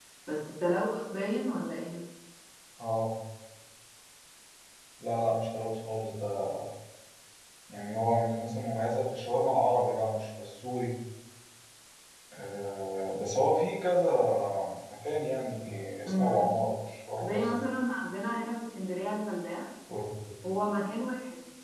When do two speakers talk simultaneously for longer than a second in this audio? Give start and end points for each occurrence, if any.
none

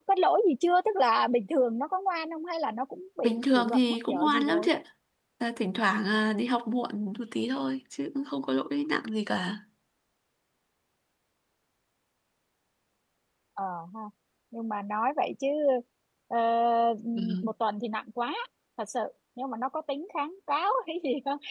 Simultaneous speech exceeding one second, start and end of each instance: 3.2-4.7

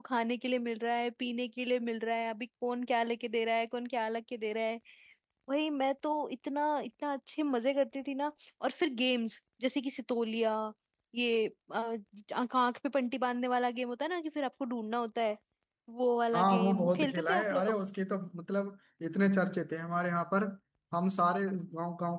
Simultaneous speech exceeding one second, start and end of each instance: 16.3-17.8

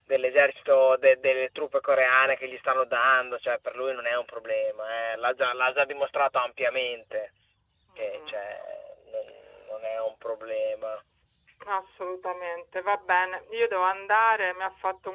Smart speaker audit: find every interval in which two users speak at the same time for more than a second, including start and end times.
none

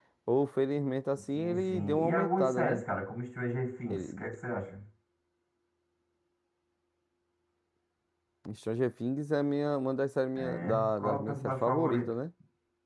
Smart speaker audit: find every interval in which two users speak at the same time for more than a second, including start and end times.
1.3-2.8, 10.4-12.0

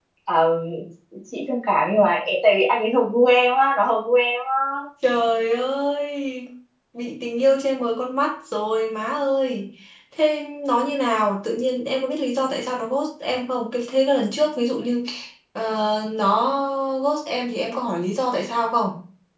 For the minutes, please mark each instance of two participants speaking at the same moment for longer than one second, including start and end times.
none

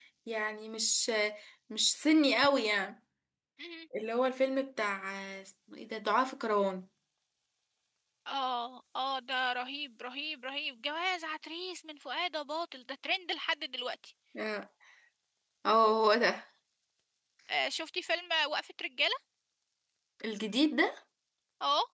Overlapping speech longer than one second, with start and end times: none

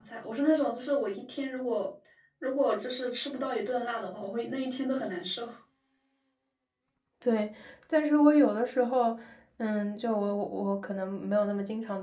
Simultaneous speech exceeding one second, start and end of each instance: none

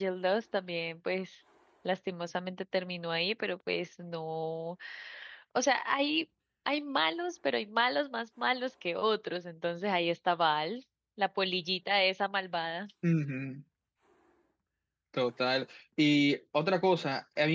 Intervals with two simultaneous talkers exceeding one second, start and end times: none

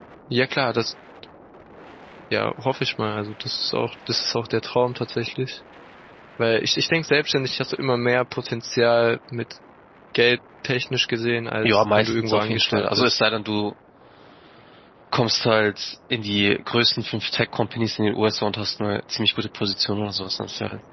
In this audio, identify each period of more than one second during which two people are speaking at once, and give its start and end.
11.6-13.2

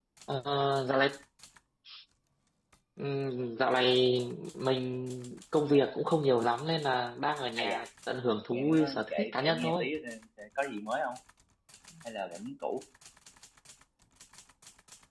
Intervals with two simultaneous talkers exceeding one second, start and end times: 8.5-9.9

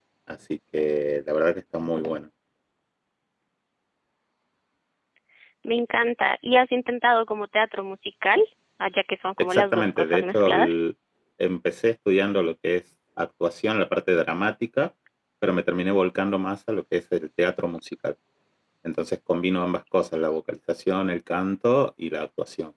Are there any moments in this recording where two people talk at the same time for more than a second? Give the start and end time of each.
9.4-10.8

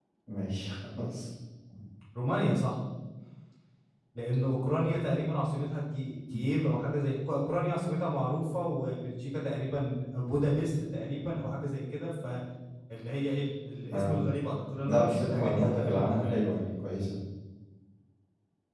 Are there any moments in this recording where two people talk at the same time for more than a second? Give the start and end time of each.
14.8-16.4

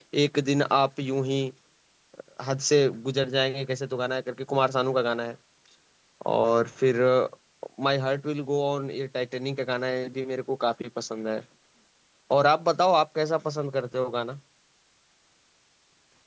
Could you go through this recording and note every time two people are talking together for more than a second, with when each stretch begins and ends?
none

